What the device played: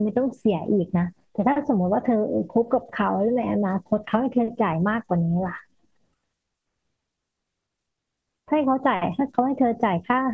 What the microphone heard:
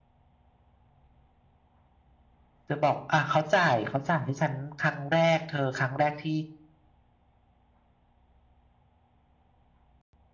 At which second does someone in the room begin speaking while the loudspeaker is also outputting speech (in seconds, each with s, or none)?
2.7 s